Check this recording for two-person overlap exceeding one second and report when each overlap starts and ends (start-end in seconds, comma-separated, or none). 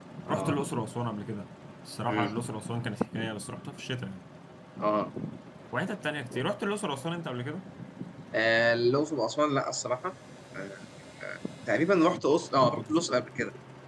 none